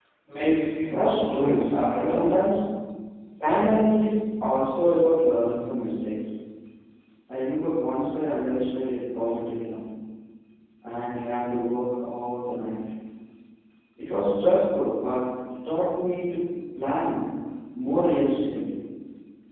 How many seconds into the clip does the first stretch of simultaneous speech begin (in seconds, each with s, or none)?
0.9 s